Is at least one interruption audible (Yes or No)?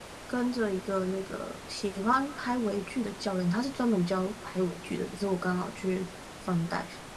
No